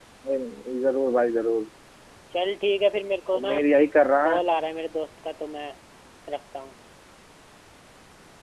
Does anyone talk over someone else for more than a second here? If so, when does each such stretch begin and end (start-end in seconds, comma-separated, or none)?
none